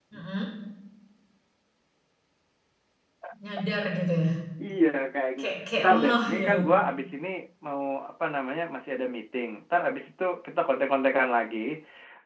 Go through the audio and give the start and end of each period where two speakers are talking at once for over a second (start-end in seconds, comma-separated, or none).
5.4-6.6